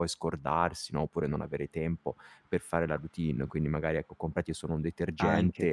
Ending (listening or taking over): listening